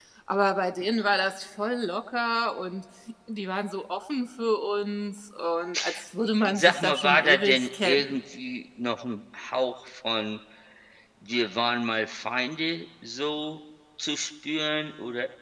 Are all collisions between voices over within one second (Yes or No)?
No